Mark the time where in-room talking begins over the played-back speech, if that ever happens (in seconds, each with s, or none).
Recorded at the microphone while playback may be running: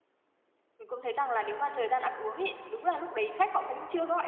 0.8 s